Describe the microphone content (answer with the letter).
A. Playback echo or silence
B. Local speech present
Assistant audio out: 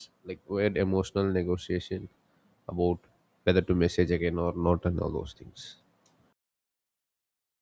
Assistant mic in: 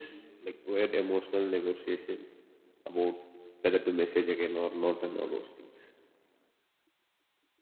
A